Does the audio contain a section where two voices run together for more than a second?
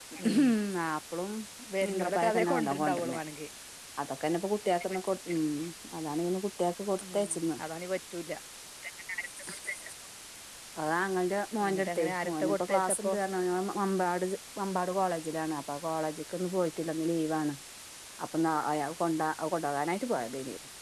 Yes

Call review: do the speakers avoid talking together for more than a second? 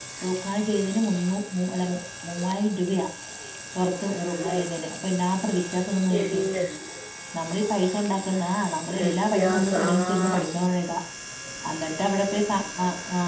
No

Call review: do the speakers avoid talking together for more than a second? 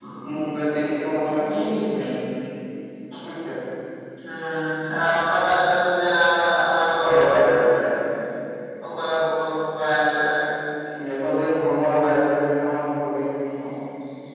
Yes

